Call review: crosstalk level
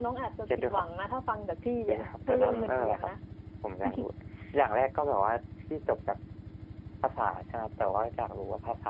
present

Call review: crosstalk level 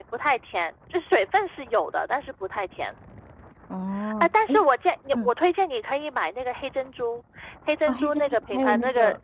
present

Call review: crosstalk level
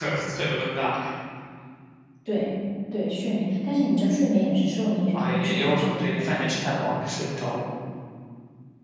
present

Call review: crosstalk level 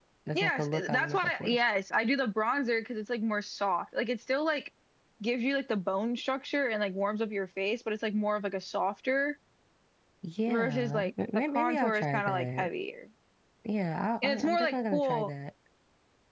present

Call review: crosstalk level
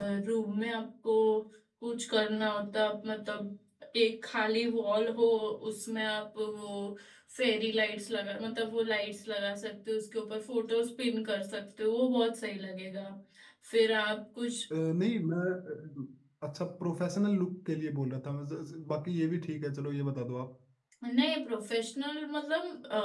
none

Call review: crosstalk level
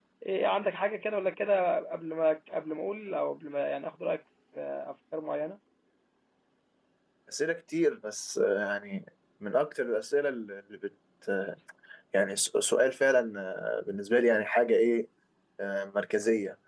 none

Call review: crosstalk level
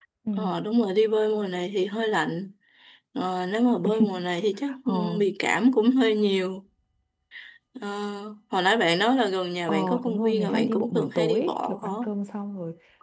present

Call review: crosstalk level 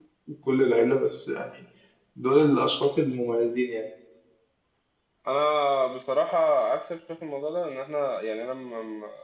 none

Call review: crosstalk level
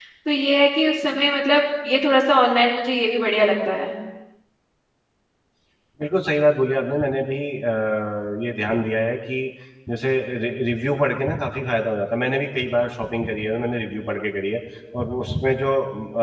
none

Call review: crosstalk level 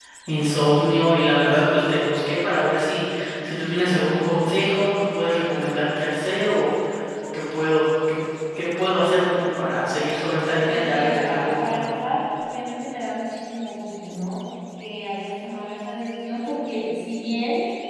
present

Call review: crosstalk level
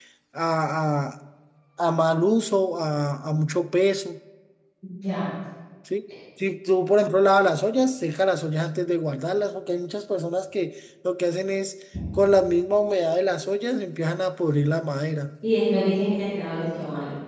none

